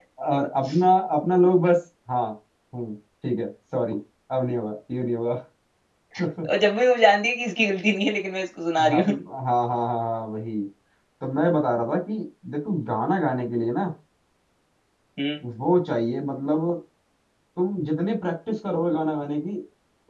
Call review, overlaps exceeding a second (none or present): none